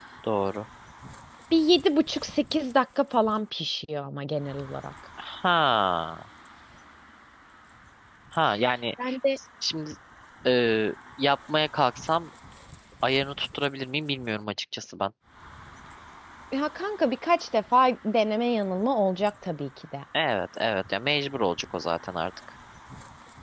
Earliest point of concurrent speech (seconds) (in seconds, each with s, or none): none